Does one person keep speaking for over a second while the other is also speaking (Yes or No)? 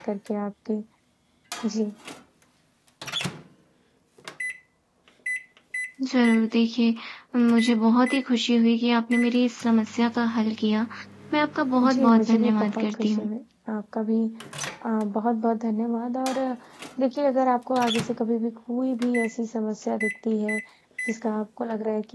Yes